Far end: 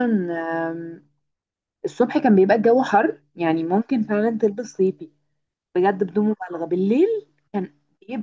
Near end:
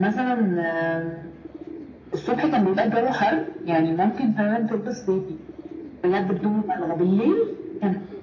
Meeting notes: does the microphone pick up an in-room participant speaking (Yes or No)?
No